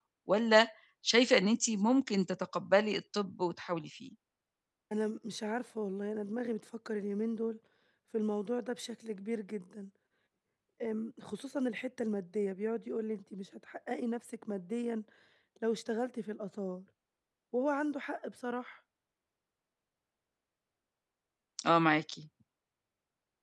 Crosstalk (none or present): none